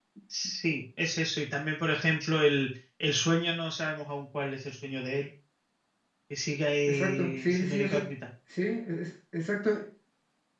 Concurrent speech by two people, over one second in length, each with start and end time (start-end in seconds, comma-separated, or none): 6.9-8.1